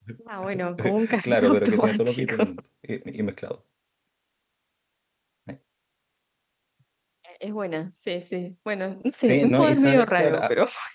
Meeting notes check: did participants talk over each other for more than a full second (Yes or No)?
Yes